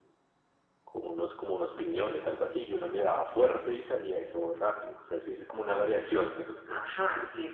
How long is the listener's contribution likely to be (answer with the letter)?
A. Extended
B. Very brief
A